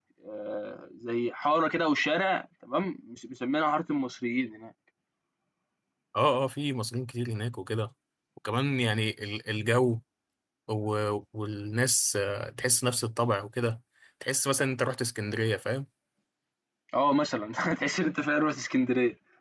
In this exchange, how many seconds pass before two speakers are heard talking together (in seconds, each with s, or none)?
none